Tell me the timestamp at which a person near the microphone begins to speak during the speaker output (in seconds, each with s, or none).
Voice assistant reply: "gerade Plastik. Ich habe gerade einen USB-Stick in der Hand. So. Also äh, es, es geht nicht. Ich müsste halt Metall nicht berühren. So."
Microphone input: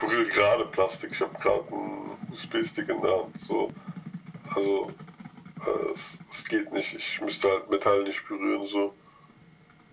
none